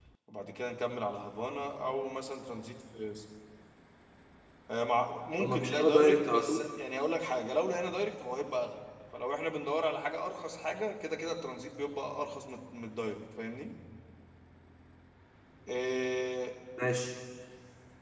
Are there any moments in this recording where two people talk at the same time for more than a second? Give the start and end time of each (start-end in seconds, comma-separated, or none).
5.4-6.7